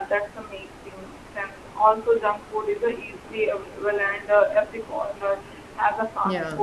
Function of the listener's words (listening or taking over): listening